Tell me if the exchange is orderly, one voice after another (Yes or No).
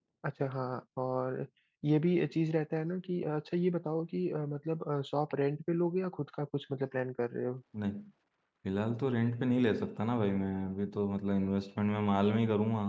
Yes